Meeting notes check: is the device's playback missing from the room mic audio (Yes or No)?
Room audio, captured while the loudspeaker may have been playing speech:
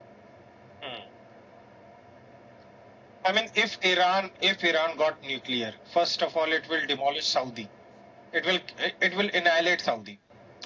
No